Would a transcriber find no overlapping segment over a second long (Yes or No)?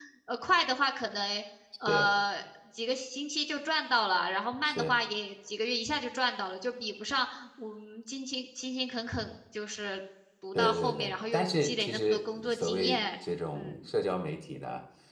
No